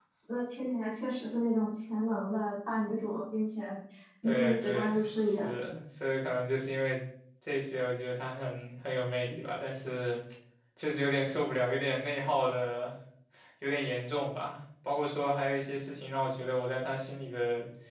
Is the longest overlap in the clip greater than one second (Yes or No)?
Yes